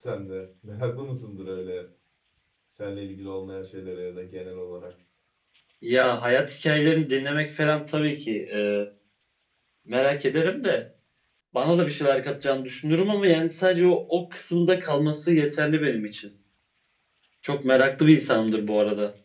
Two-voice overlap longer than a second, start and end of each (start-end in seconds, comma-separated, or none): none